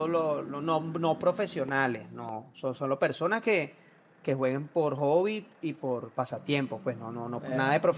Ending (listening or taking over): listening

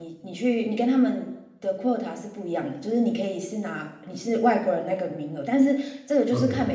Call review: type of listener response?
listening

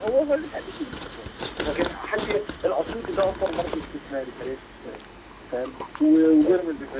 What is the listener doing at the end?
listening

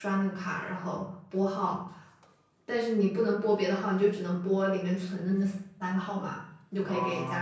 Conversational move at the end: listening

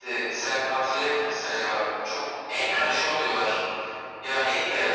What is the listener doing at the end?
taking over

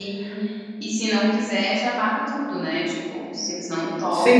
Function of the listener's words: taking over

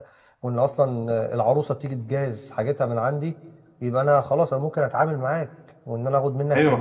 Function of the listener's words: taking over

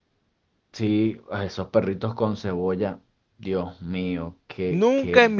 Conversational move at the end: taking over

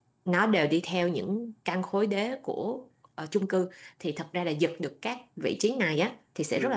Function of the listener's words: listening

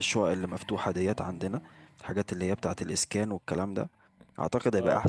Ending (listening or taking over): listening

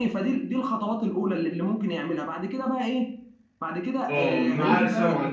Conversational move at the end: taking over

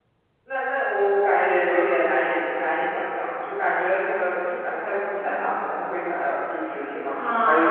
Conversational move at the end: taking over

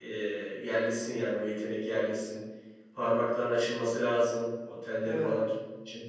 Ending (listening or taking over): listening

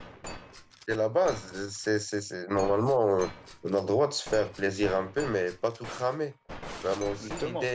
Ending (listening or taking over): listening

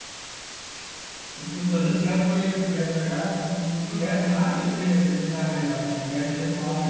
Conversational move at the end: taking over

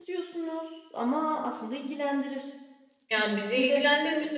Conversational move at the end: taking over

